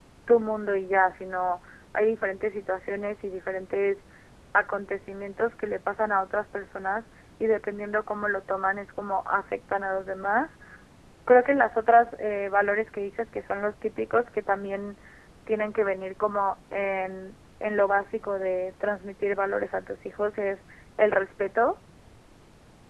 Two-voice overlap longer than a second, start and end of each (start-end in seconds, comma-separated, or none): none